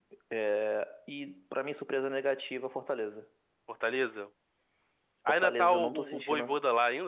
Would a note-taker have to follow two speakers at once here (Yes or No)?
Yes